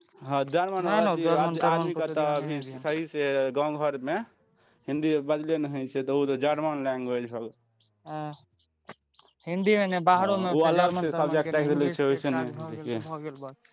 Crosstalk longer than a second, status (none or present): present